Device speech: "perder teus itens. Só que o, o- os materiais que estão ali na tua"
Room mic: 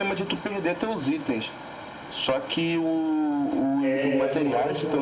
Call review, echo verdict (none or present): present